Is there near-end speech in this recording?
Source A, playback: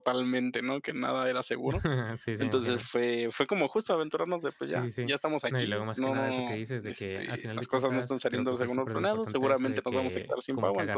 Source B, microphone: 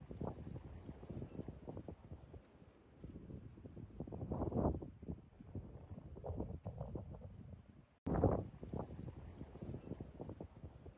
No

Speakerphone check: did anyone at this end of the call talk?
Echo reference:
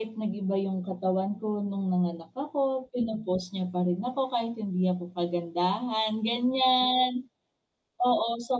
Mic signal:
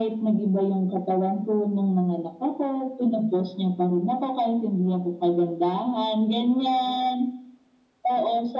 No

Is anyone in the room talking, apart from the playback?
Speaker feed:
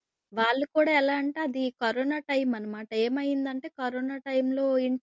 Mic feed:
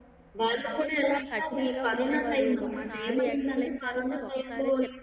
Yes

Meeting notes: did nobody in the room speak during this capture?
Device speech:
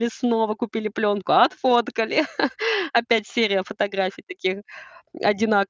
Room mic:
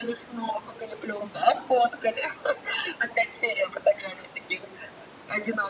Yes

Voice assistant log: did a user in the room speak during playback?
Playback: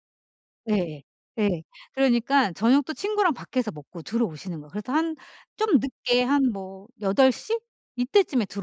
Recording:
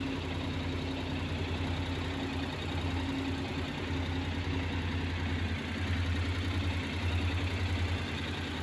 No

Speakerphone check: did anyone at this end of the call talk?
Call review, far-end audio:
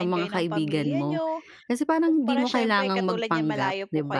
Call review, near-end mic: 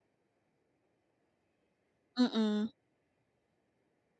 Yes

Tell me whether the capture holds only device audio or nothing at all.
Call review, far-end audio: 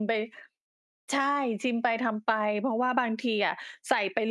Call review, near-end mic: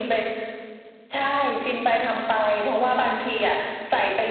Yes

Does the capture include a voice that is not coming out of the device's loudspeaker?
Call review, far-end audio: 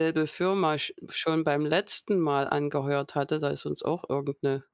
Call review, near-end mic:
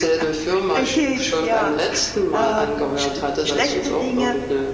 Yes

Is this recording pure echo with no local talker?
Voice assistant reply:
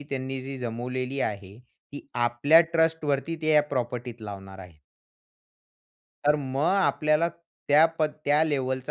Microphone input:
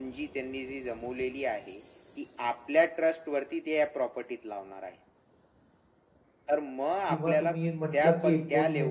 No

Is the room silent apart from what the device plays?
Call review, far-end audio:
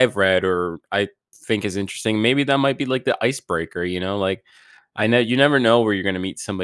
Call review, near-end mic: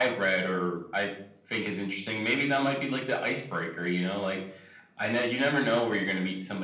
Yes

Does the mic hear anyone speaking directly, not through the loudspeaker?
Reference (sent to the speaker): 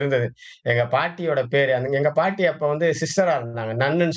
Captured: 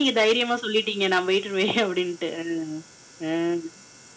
Yes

